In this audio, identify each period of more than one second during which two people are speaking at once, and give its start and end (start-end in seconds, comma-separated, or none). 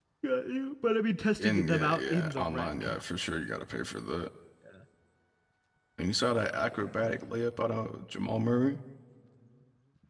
1.4-3.0